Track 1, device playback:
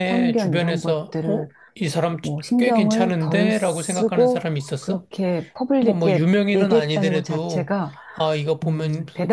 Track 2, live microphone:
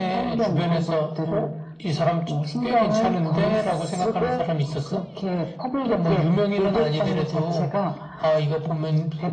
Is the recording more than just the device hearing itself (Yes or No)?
No